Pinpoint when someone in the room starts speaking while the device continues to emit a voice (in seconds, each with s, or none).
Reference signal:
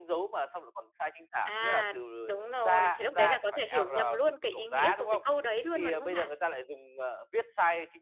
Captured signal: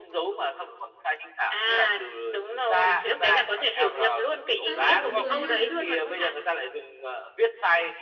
4.6 s